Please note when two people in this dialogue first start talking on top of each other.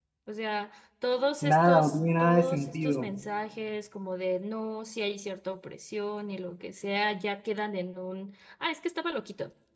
1.4 s

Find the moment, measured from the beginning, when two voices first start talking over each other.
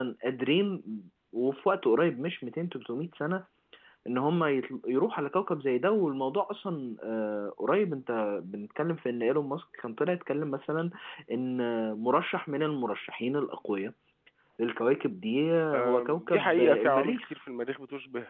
15.7 s

